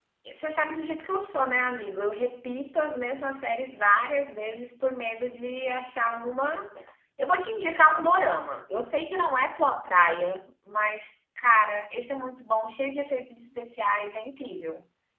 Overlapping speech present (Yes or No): No